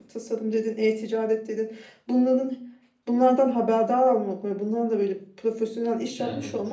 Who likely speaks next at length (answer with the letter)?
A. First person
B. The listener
A